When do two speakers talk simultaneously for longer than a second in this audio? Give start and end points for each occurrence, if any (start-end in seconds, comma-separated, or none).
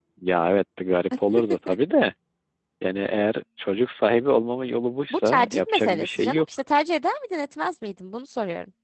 5.1-6.4